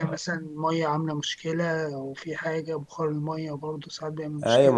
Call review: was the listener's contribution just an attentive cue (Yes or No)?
No